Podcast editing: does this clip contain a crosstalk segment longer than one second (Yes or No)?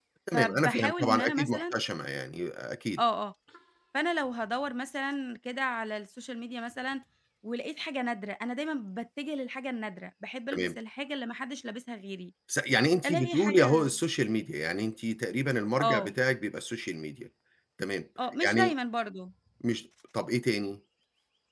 Yes